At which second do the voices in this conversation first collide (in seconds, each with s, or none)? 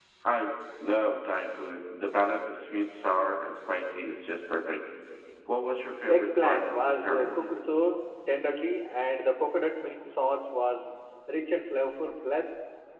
6.1 s